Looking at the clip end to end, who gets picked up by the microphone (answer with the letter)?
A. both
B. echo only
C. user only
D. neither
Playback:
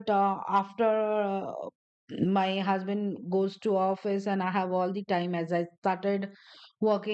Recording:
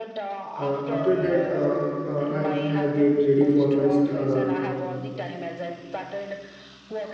A